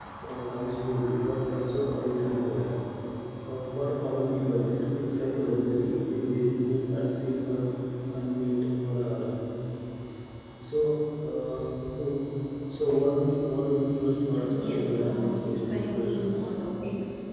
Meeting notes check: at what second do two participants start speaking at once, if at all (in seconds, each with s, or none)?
14.4 s